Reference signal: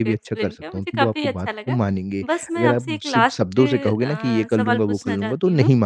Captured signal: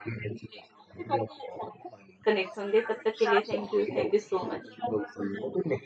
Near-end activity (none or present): present